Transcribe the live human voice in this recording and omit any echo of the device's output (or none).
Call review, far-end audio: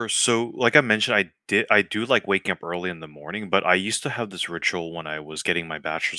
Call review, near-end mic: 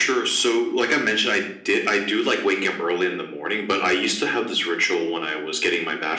none